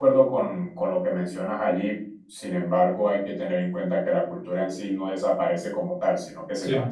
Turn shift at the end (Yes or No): No